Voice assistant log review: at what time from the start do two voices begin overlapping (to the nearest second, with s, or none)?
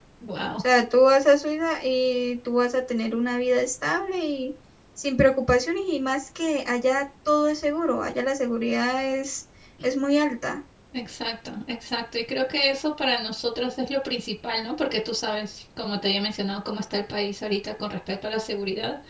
none